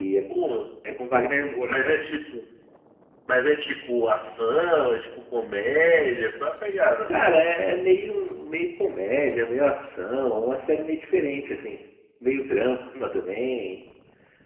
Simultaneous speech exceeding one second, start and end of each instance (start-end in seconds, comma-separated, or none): none